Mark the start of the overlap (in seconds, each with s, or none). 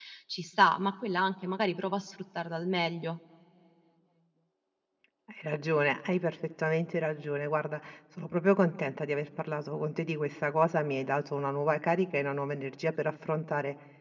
none